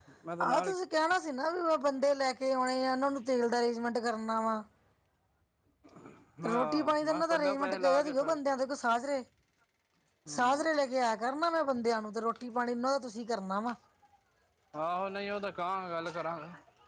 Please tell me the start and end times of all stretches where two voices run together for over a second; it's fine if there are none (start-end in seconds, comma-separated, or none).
6.5-8.4